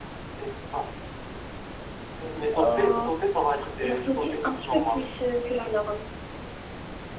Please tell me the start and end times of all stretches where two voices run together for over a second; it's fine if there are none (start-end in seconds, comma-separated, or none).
3.8-5.2